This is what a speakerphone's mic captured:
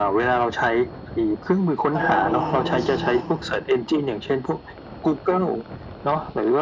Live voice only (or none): ตลอดเวลาด้วย ใช่ค่ะ